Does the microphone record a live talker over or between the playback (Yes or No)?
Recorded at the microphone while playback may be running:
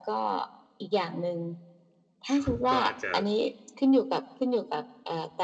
Yes